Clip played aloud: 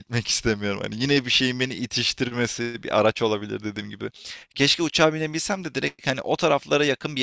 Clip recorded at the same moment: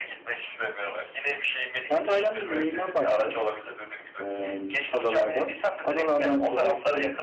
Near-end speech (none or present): present